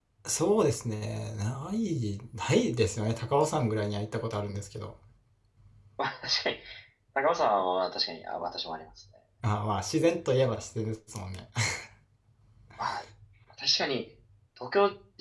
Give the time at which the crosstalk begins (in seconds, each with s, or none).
none